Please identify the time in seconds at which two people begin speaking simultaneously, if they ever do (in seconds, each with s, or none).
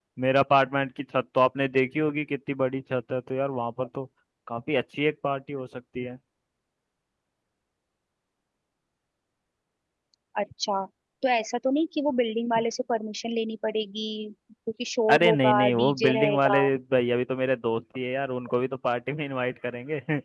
15.1 s